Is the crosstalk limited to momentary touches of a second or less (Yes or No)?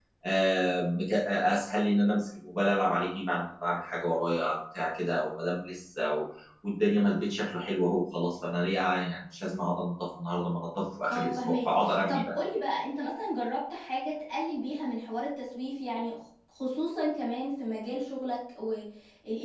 No